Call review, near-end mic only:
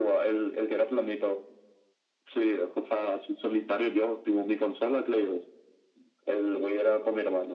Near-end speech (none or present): none